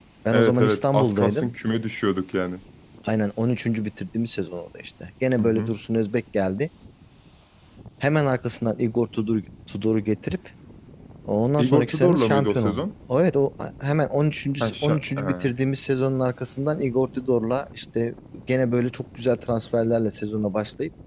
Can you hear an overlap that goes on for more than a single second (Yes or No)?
Yes